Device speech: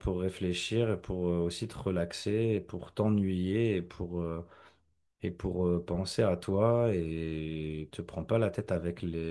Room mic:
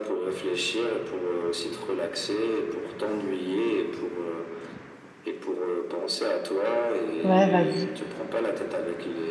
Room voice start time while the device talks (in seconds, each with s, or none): 7.2 s